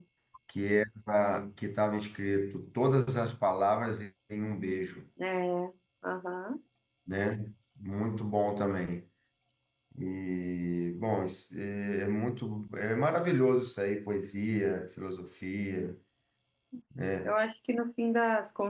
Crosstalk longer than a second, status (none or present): none